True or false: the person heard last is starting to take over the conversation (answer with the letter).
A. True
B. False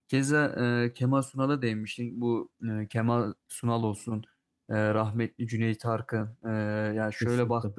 B